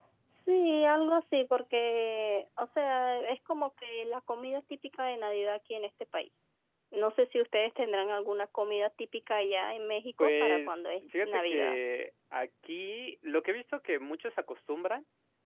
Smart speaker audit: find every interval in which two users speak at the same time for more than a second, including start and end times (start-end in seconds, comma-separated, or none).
10.2-11.8